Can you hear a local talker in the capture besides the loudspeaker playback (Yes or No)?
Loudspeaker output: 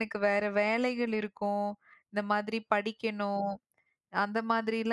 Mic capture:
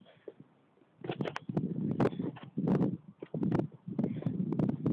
No